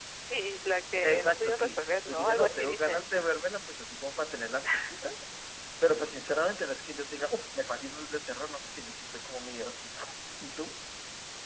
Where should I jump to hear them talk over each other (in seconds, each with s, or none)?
1.0 s